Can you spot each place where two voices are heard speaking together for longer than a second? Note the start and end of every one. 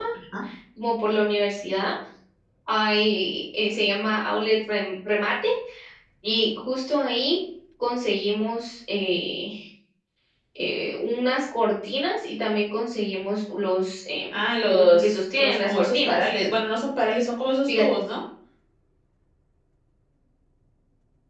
14.7-16.2

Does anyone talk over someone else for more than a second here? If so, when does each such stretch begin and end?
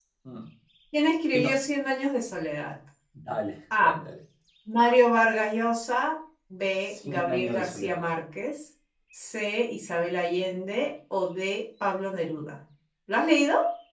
6.8-8.1

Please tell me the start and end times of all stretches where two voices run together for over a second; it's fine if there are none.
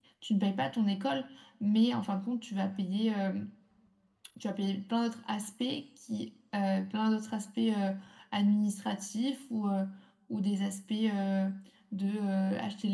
none

